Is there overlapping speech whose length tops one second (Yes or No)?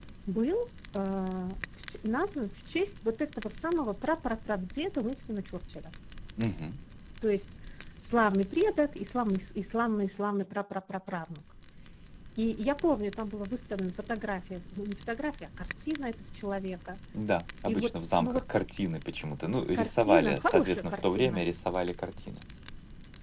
Yes